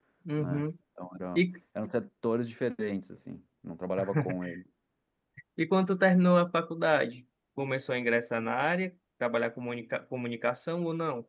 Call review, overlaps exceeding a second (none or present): none